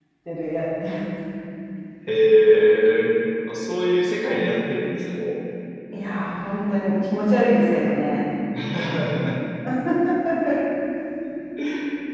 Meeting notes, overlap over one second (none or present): none